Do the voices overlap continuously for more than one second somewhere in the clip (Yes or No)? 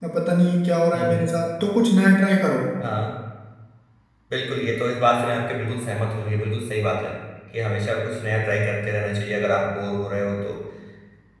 No